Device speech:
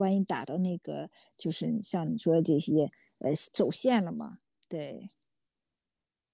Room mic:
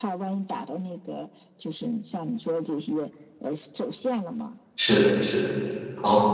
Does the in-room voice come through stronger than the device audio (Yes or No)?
Yes